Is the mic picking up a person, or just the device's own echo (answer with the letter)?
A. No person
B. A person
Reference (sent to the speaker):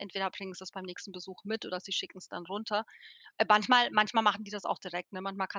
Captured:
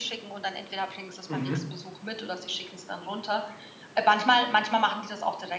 B